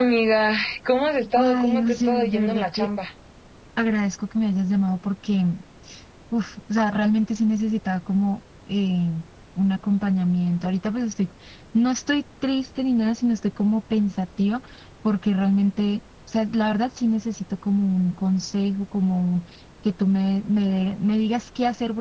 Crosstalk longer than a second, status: present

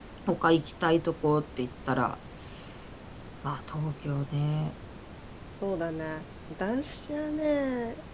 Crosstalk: none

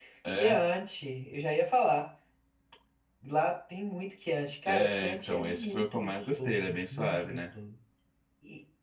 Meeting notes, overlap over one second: present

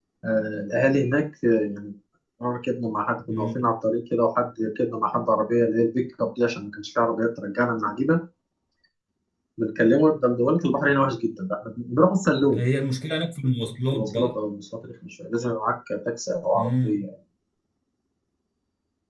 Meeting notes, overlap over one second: none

